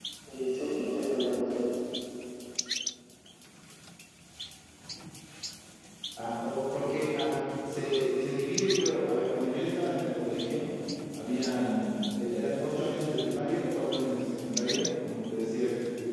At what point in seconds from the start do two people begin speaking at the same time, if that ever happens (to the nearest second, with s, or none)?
none